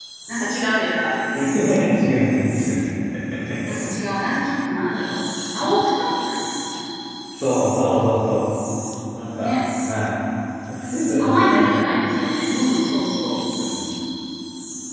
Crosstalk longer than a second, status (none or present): none